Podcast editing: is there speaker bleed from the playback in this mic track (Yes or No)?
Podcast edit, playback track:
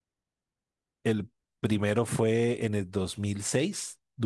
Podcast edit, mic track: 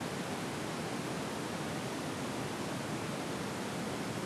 No